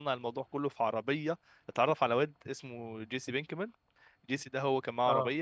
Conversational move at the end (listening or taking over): listening